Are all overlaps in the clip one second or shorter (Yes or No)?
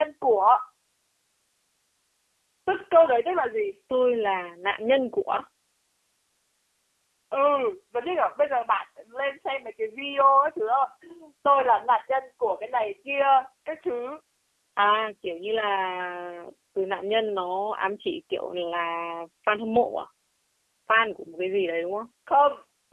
Yes